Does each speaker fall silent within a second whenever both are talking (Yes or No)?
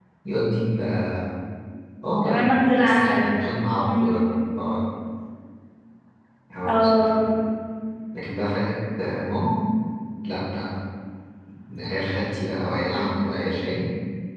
Yes